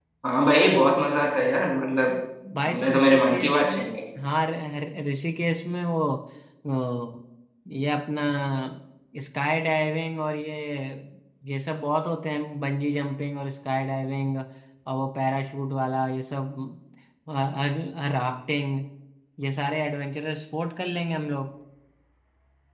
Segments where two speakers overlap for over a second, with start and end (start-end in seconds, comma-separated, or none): 2.7-4.0